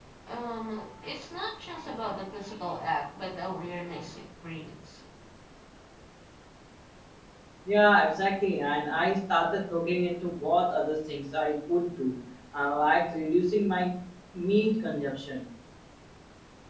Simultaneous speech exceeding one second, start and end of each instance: none

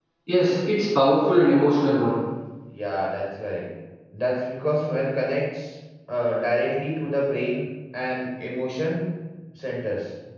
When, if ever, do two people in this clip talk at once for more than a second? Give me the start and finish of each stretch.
none

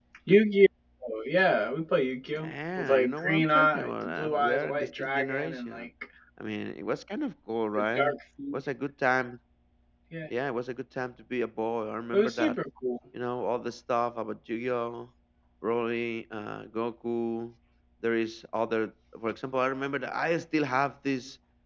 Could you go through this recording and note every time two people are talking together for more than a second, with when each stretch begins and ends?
2.3-5.9

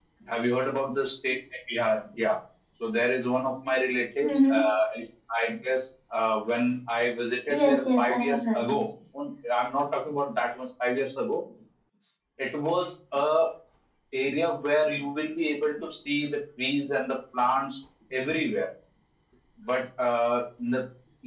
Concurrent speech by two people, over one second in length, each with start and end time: 7.5-8.8

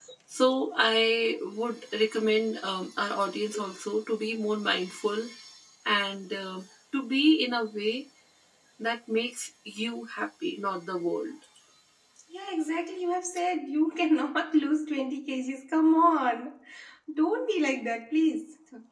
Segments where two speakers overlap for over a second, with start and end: none

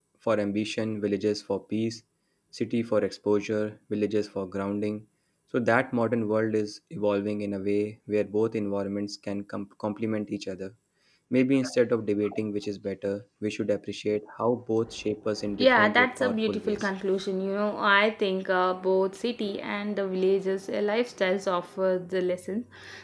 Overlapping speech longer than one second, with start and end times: 15.6-16.9

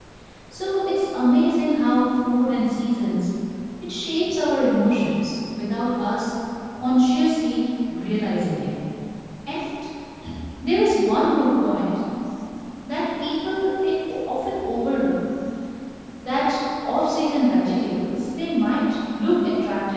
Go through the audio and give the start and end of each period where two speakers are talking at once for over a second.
none

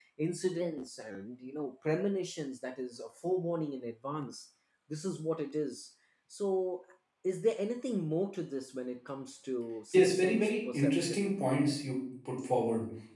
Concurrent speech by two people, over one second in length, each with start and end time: 9.9-11.3

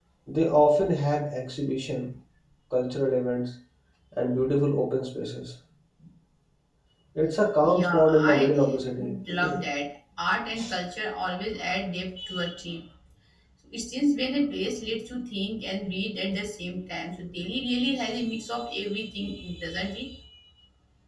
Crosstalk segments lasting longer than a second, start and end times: 7.6-9.1

